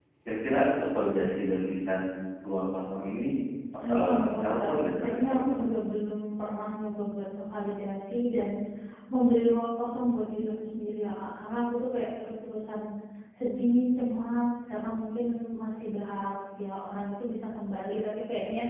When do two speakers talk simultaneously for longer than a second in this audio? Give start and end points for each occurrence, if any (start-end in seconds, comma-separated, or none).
3.9-5.8